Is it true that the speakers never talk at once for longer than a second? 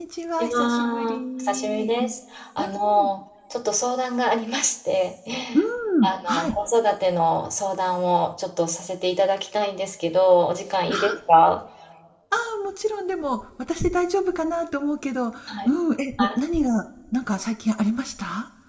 No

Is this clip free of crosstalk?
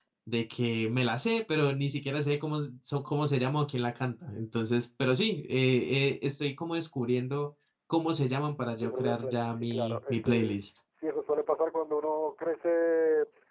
No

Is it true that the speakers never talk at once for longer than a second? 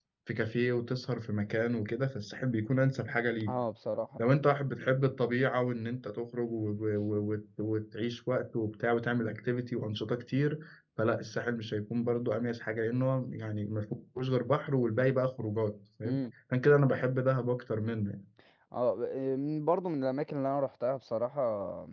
Yes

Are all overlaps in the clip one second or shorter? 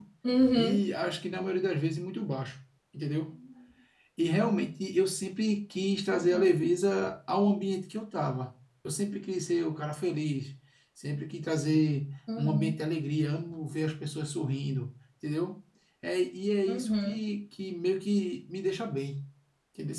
Yes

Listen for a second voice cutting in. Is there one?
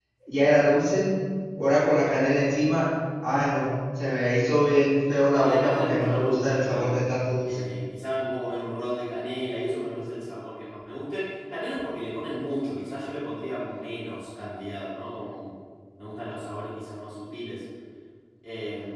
Yes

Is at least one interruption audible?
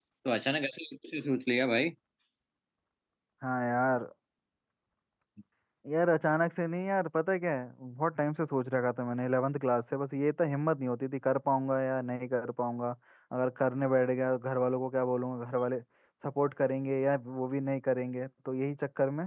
No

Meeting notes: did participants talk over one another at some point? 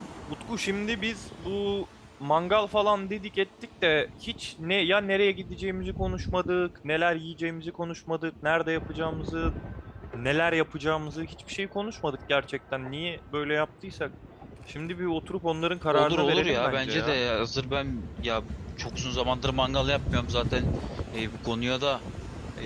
Yes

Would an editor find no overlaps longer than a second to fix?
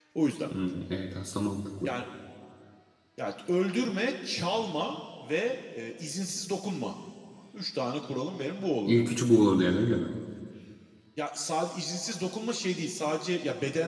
Yes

